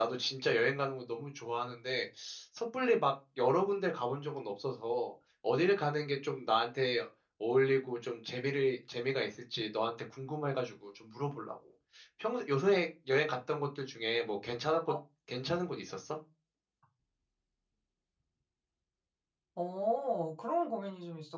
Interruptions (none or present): none